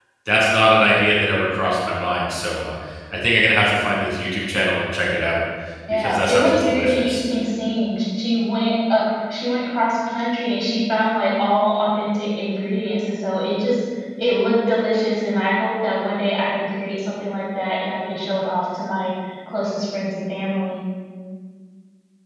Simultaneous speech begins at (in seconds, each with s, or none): 5.9 s